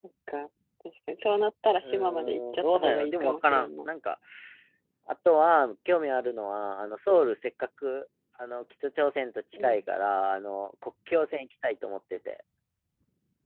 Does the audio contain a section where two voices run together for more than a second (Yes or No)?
Yes